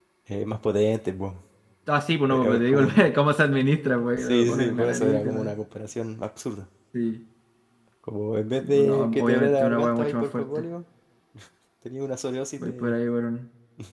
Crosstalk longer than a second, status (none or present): present